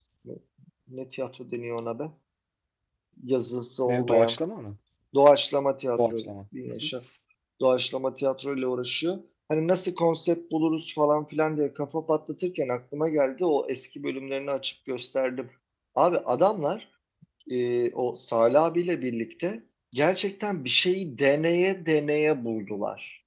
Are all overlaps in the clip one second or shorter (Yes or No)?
Yes